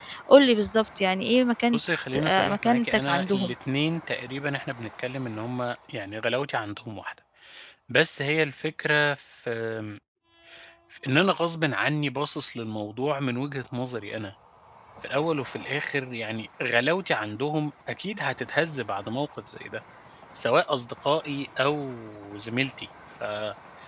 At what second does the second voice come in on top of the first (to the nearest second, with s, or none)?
2 s